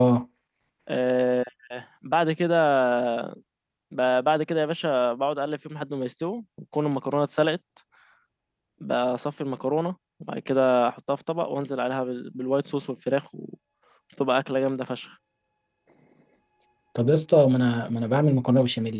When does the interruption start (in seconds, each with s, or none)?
none